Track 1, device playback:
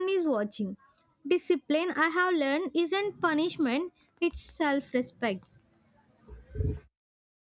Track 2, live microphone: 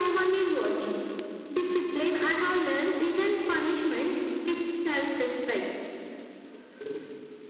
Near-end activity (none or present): none